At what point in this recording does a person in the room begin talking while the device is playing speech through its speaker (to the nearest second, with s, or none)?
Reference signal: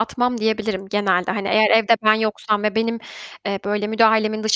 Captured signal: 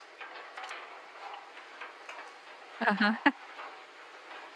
3 s